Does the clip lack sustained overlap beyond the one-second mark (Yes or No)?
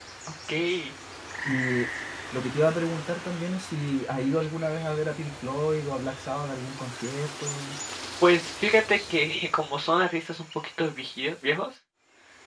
Yes